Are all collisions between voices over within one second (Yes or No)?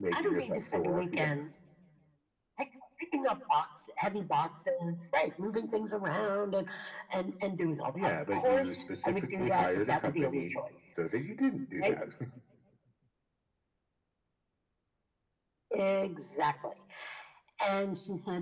No